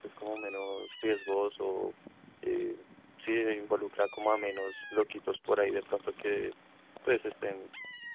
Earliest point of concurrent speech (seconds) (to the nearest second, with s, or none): none